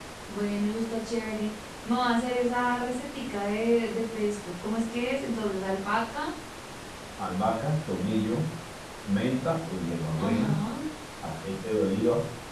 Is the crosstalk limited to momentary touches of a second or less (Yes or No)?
Yes